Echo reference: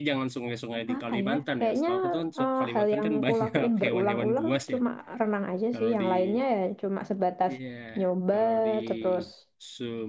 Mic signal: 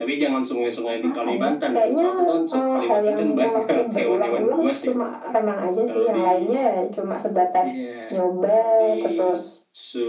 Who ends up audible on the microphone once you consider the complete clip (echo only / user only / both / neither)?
echo only